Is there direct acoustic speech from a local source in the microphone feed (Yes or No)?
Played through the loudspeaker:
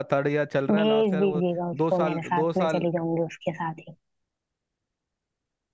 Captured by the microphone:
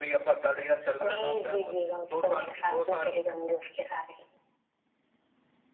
No